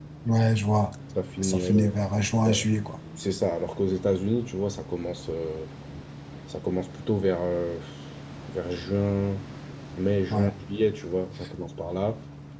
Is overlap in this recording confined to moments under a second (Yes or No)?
Yes